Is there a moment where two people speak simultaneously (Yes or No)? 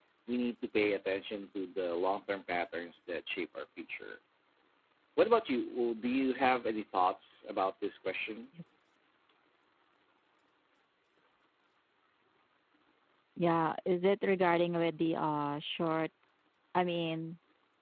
No